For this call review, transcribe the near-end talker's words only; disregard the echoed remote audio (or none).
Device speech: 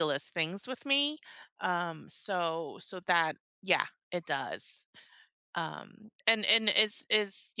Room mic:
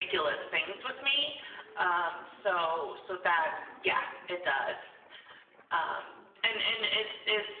none